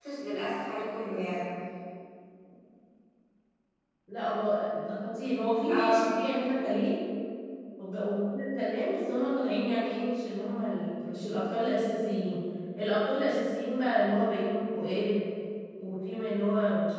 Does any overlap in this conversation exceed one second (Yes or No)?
No